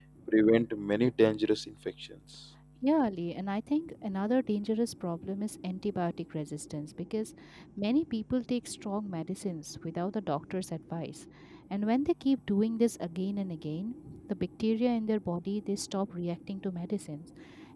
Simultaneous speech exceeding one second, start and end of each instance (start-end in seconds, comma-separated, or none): none